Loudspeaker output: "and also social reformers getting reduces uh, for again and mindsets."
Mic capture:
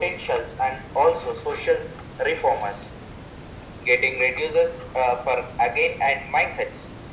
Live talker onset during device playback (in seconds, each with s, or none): none